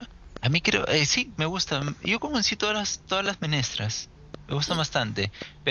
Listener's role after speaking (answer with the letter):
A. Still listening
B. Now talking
A